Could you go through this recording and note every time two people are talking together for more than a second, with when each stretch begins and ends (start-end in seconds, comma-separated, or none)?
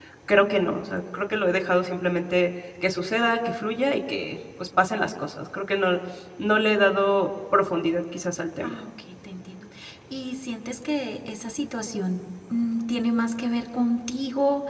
none